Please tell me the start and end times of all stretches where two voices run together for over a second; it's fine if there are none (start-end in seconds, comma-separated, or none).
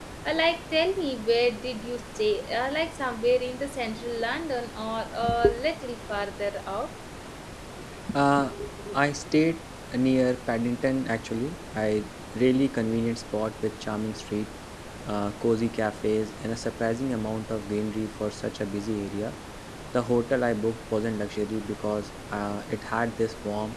none